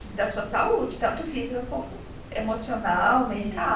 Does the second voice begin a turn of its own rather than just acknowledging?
Yes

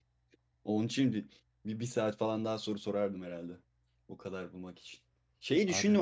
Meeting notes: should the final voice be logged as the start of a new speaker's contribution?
No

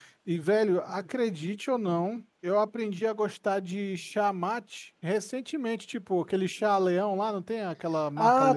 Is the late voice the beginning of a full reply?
Yes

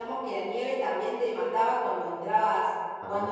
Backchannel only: Yes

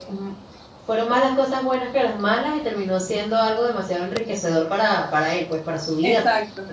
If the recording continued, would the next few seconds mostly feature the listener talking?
Yes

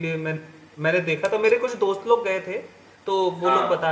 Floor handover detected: No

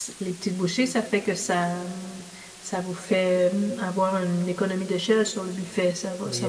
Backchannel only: No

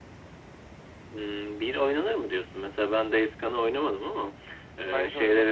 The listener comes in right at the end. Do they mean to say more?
No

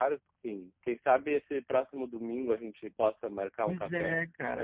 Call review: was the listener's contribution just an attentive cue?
No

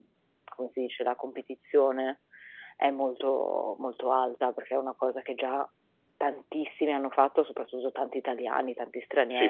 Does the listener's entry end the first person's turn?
Yes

